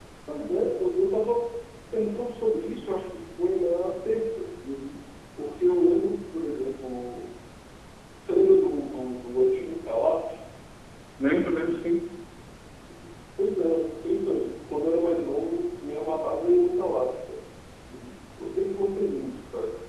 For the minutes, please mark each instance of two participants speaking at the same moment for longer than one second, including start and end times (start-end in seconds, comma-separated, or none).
none